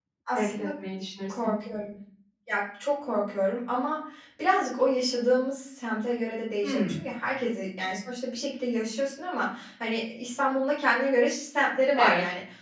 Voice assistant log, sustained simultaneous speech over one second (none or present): none